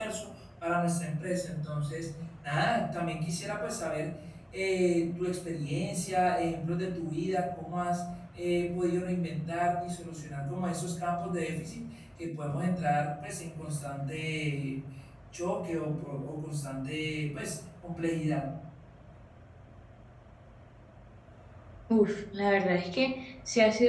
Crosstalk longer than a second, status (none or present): none